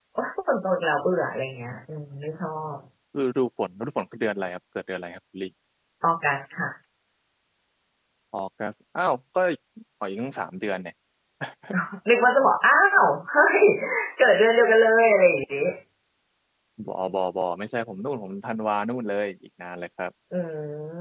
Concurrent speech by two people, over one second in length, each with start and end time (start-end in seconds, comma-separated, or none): none